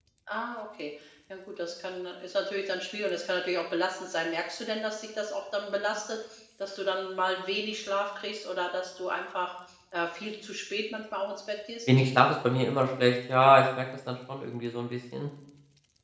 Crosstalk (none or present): none